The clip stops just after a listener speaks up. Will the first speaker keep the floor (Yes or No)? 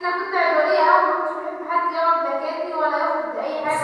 Yes